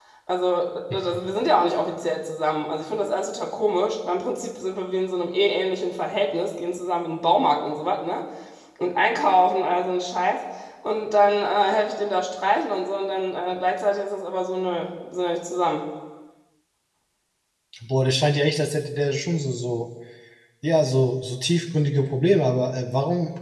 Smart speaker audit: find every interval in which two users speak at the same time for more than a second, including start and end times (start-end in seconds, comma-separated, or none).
none